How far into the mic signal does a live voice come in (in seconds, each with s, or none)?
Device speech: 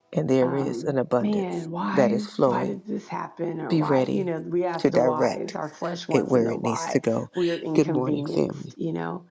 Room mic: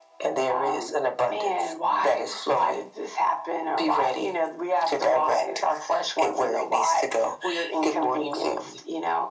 none